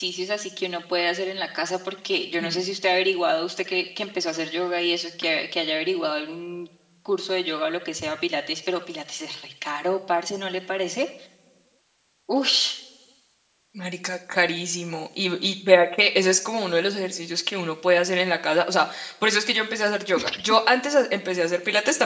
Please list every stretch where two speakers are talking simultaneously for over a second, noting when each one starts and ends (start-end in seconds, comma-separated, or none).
none